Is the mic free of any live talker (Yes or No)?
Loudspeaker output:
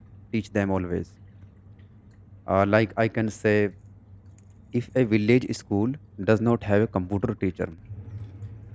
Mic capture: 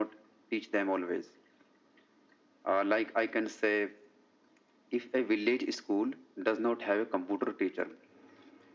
Yes